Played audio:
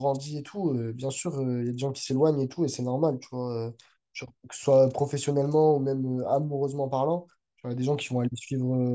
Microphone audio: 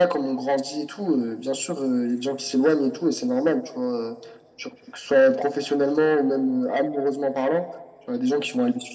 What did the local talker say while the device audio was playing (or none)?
none